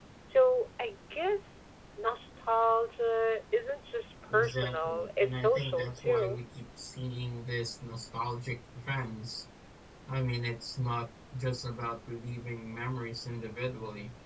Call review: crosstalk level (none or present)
present